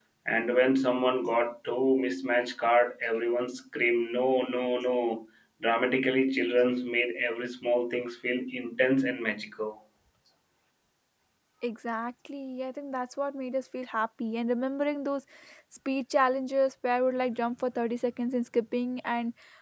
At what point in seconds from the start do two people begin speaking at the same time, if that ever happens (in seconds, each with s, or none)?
none